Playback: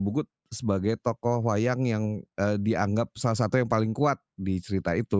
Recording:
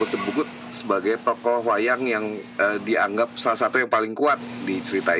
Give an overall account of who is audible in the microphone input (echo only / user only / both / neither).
echo only